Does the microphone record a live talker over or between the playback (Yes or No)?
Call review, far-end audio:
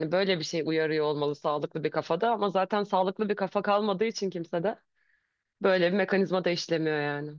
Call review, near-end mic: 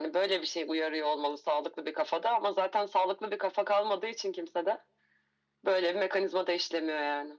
No